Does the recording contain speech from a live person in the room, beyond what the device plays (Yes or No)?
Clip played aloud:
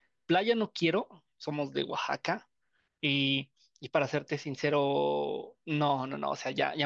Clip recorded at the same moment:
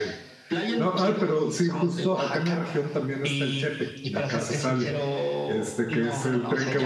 Yes